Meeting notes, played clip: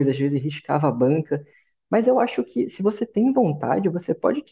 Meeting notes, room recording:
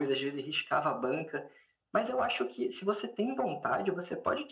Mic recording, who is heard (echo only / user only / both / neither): echo only